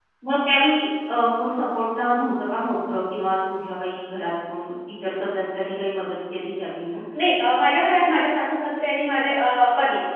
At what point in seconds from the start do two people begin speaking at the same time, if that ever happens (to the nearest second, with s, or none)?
none